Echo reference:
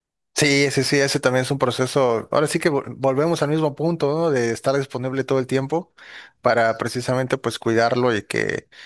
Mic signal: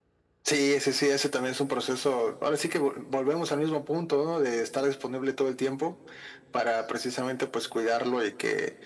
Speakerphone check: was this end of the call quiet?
Yes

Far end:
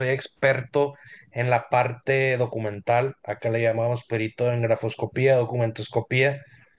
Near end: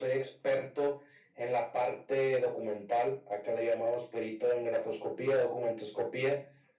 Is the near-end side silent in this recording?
Yes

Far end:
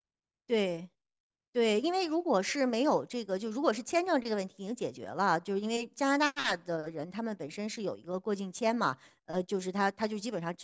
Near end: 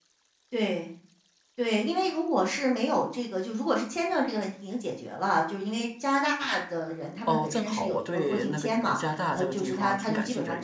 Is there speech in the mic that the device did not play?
Yes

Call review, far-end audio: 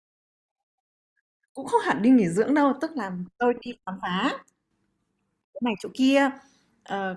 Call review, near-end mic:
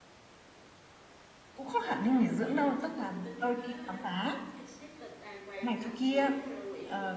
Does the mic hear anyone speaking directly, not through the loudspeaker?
Yes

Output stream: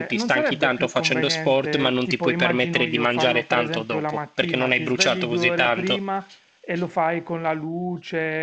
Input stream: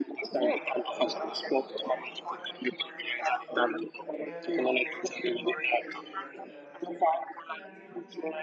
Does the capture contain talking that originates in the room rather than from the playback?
Yes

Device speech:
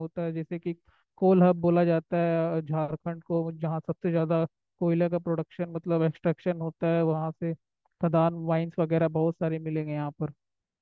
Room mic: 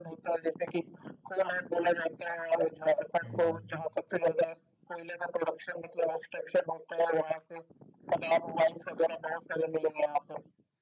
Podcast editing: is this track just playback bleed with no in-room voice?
No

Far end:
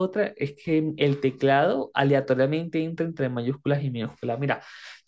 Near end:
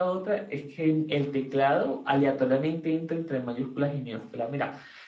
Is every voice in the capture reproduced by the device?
Yes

